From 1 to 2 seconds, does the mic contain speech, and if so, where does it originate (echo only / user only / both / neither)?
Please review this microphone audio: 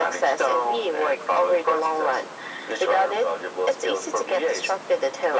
echo only